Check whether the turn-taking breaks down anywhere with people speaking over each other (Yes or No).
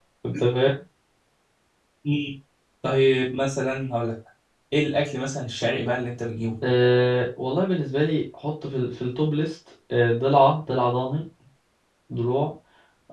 No